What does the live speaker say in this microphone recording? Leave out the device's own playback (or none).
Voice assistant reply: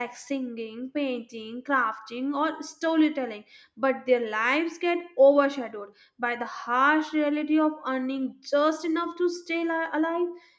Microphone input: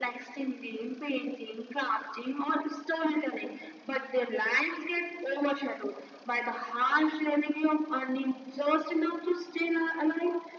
none